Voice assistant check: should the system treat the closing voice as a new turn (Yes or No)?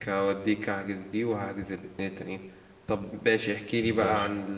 No